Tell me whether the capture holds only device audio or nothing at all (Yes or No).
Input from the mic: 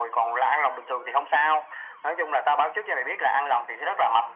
Yes